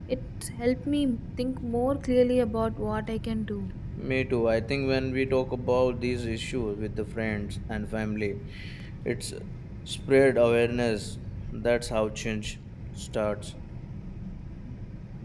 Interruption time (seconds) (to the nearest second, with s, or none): none